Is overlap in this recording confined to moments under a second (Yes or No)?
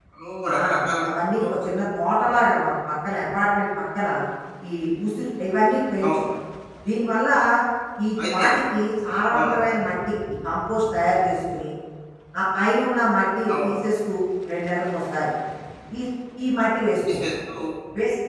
Yes